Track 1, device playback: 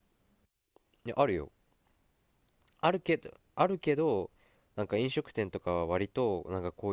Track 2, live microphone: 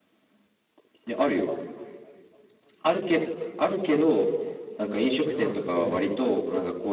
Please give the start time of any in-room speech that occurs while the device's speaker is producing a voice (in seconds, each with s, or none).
5.2 s